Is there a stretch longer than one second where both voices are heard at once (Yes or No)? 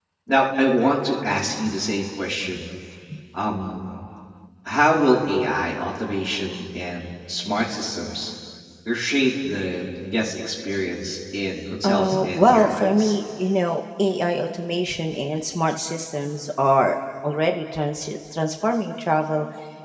Yes